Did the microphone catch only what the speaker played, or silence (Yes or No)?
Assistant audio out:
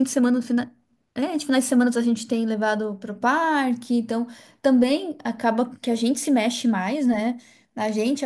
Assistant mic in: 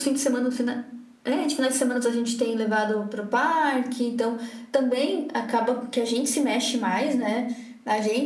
Yes